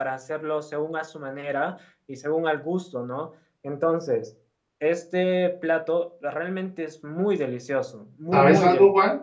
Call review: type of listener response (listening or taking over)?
taking over